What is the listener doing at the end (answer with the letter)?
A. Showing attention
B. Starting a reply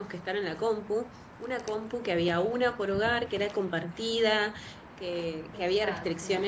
A